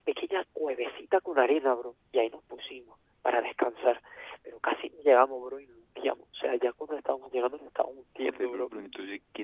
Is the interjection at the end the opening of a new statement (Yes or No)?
Yes